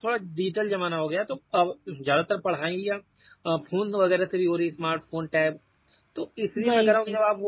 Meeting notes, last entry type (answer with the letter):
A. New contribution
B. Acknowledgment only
B